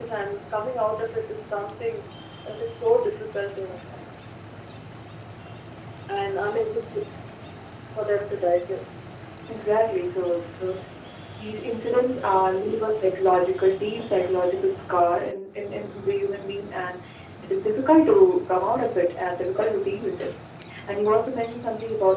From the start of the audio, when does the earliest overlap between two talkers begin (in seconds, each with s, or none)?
none